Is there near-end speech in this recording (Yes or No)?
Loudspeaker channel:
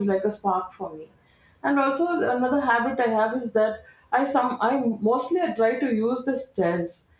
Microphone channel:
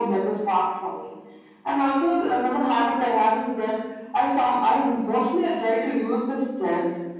No